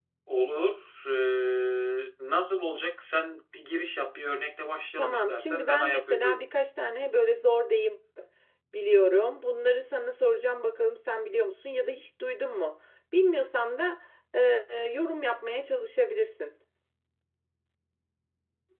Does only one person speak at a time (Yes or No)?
No